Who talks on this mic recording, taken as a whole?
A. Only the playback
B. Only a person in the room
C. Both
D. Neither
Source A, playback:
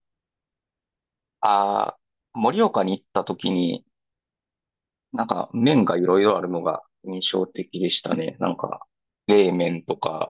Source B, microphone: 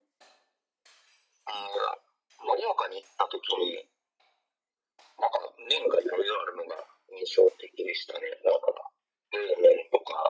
A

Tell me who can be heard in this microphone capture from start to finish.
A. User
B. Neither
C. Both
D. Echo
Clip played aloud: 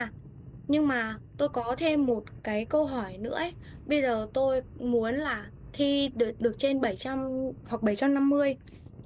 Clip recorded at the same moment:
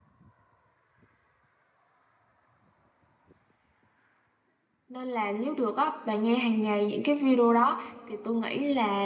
A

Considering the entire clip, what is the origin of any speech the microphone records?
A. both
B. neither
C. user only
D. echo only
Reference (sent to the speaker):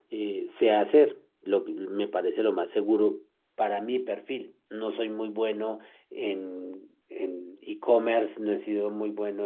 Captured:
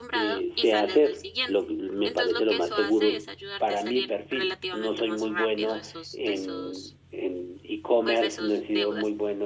A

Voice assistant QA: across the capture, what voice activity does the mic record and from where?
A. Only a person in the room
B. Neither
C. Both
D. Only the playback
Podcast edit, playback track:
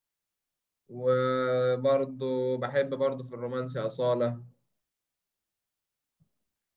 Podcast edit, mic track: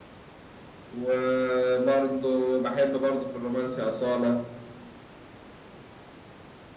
D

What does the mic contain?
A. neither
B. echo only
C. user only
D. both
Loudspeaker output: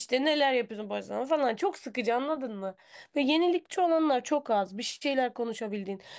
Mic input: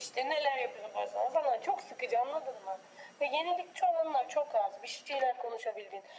B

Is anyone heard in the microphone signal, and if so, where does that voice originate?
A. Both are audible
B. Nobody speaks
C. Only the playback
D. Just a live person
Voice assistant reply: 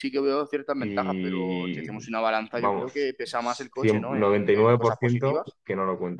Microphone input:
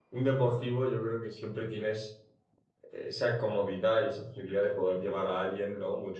D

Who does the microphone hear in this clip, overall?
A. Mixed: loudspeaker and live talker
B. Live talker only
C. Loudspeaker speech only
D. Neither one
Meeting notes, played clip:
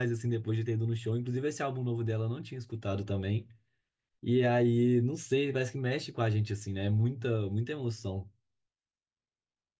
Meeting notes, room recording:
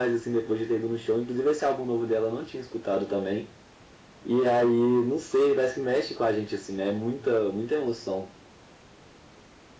C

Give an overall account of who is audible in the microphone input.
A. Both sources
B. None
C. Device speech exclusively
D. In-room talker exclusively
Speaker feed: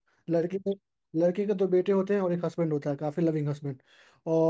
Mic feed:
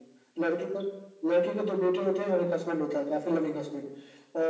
C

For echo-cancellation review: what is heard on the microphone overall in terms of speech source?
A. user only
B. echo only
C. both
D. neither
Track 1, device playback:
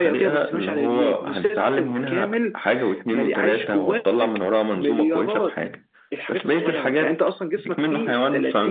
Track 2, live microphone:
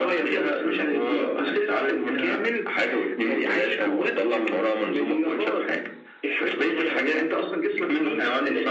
B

